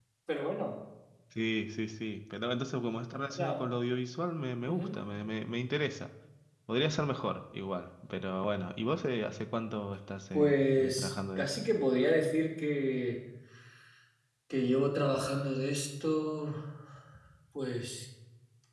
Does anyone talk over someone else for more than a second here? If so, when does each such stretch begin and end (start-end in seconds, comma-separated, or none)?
10.3-11.6